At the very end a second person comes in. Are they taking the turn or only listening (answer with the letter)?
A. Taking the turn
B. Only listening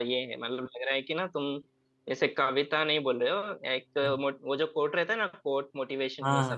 A